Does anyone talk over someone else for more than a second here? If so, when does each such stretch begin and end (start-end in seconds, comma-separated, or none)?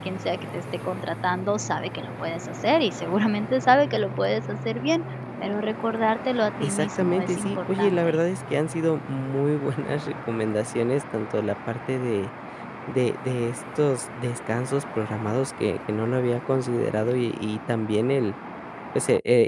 6.6-8.2